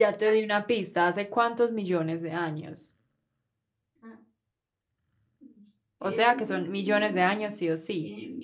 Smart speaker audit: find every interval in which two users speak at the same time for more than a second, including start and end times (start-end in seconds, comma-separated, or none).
6.0-7.5